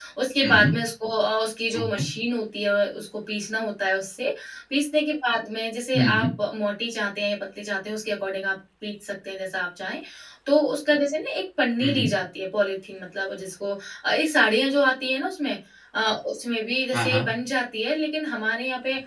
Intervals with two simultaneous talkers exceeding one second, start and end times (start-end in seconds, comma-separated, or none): none